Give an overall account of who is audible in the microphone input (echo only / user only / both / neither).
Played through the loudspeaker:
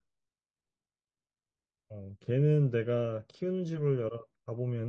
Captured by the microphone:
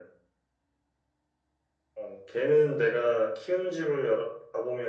echo only